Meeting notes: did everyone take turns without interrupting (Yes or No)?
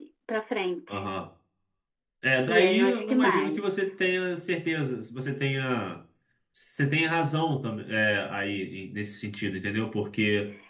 No